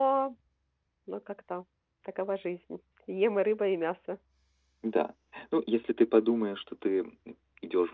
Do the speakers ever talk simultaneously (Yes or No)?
No